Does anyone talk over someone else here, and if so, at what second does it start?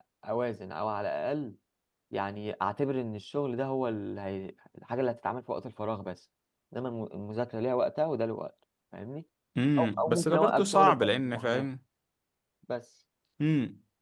9.8 s

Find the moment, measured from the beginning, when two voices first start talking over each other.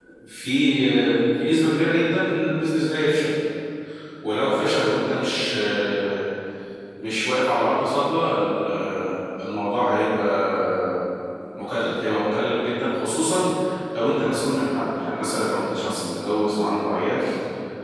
none

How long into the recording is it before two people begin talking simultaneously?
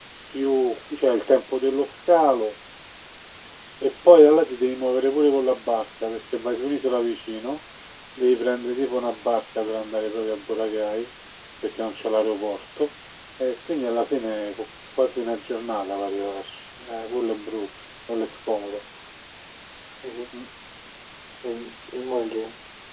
none

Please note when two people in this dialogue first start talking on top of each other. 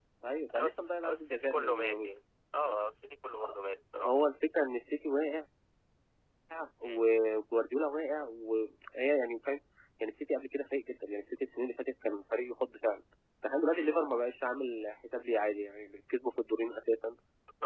0.5 s

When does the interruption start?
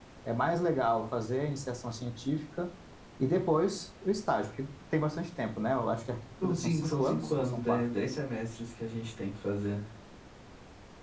6.4 s

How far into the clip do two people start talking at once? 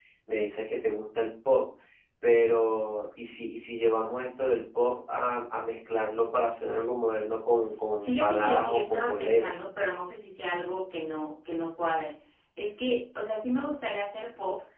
7.5 s

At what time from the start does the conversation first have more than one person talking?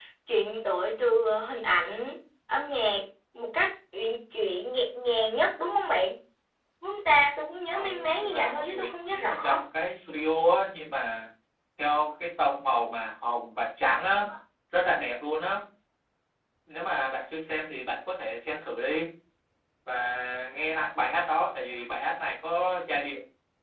7.7 s

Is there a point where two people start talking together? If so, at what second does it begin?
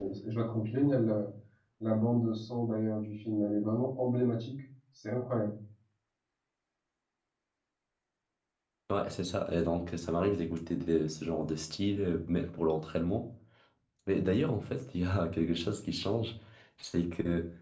none

